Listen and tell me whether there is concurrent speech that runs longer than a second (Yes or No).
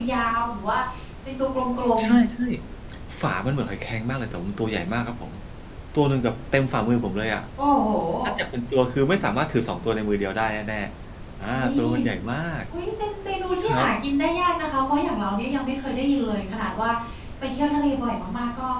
No